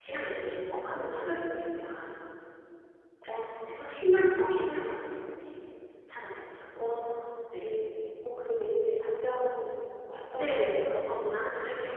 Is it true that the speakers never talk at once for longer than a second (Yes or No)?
Yes